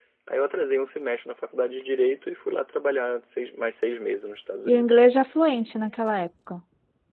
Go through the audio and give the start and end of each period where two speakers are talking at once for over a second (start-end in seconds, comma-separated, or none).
none